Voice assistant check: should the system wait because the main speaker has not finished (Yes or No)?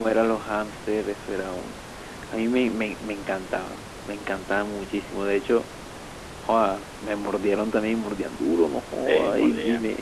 Yes